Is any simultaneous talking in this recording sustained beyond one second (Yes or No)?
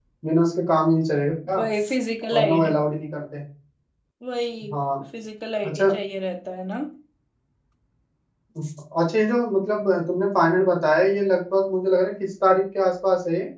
No